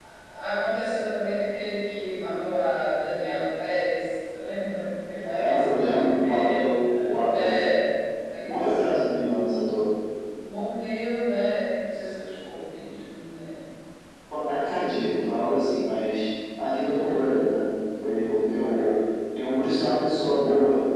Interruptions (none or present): present